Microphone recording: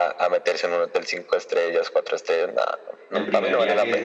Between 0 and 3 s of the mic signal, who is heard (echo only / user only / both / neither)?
echo only